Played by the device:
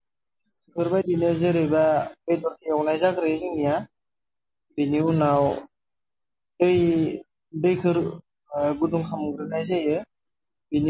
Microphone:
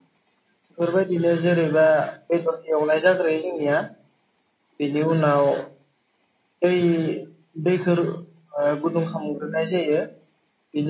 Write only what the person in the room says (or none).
none